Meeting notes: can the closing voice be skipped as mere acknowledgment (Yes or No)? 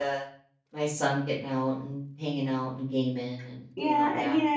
No